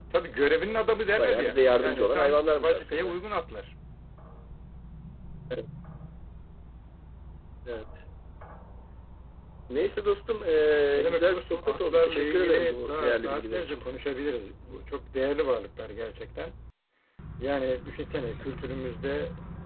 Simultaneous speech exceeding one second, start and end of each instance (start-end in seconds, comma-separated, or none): 0.6-3.1, 10.9-13.8